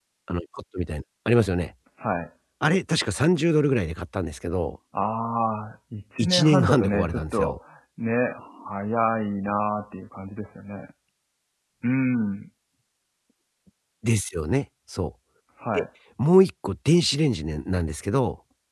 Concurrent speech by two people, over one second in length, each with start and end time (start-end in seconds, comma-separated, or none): 6.2-7.6